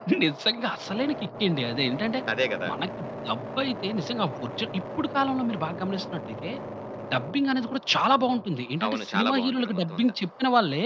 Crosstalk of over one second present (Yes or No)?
Yes